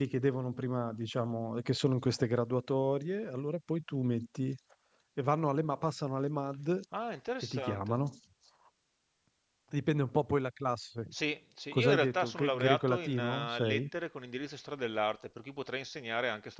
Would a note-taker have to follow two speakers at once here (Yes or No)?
Yes